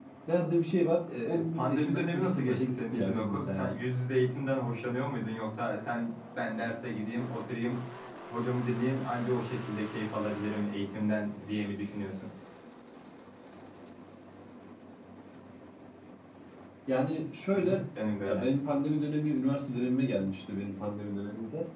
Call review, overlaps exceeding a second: present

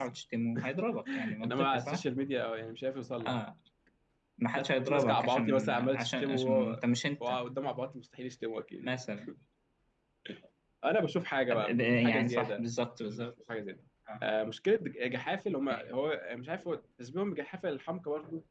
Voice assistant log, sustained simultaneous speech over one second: present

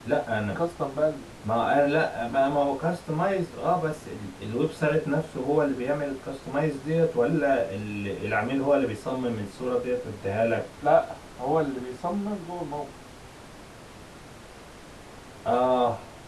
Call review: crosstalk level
none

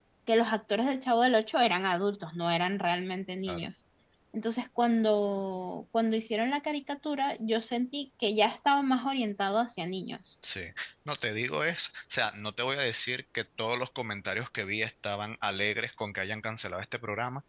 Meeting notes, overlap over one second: none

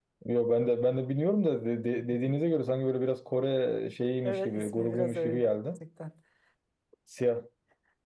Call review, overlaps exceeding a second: present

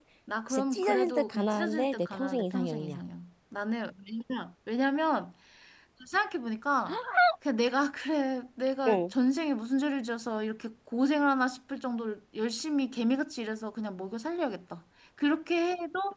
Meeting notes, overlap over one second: present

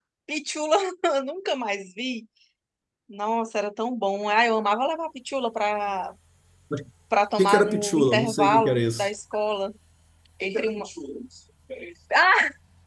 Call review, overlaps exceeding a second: present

